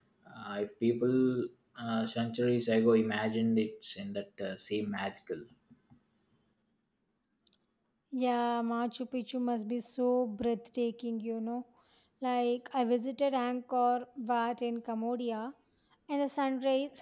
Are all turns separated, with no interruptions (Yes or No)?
Yes